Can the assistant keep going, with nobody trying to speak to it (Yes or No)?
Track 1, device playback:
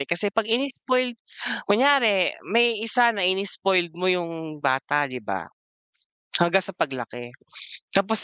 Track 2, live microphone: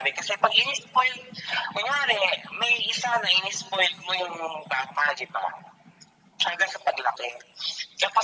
Yes